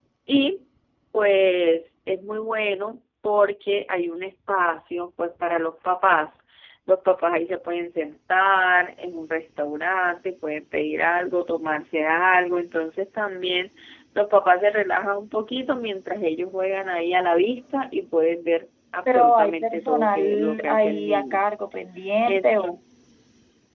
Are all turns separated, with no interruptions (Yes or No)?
No